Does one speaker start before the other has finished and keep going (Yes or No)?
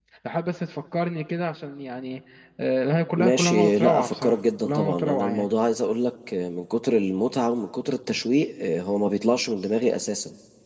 Yes